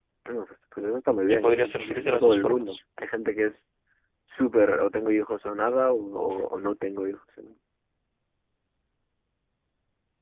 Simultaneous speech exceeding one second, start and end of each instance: 1.3-2.8

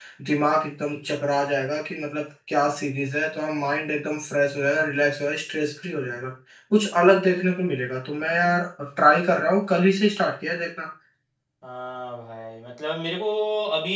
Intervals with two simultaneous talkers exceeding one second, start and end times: none

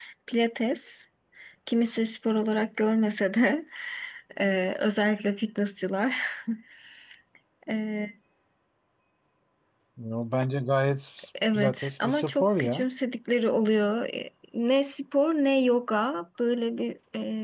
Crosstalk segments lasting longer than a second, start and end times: 11.5-12.9

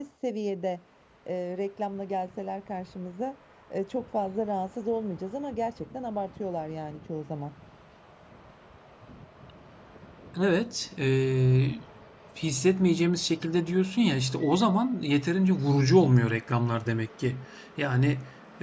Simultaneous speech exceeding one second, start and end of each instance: none

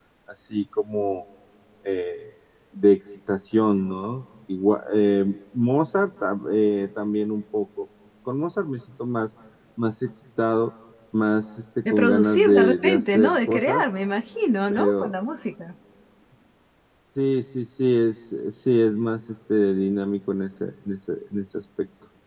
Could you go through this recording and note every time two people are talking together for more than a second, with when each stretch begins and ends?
11.9-13.8

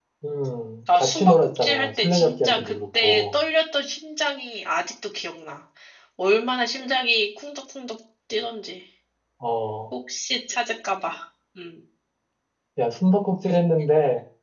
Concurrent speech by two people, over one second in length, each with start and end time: 1.0-3.2

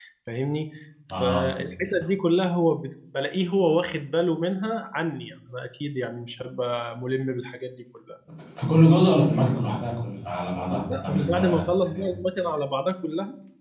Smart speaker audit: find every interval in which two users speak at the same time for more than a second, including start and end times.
10.7-12.0

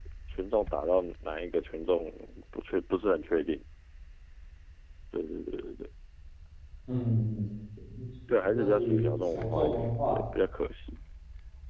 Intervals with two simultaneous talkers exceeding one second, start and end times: 8.4-10.2

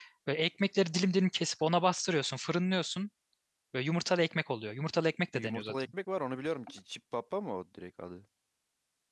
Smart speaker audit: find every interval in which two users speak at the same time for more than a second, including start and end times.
none

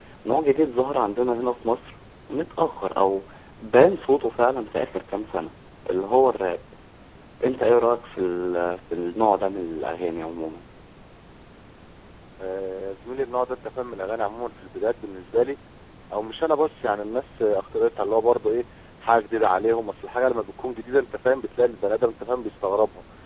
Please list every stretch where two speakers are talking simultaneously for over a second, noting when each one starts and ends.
none

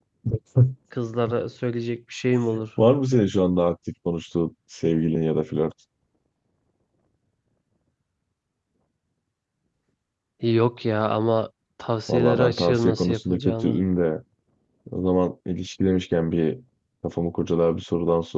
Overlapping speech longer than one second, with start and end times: 12.1-13.8

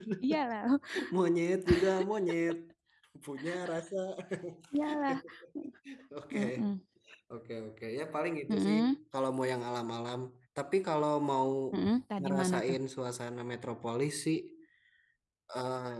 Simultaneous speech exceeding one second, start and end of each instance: none

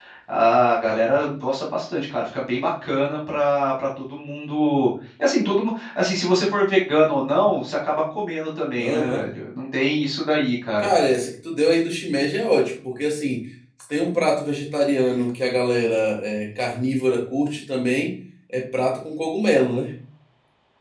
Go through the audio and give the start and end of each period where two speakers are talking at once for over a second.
none

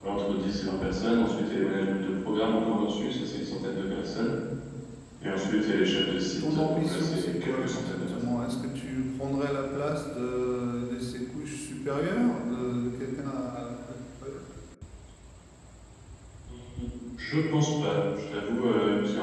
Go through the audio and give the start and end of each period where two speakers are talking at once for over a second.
6.4-8.4

